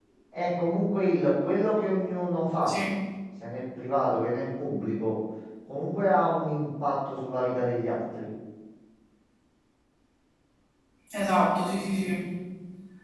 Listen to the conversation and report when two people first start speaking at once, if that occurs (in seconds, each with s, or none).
none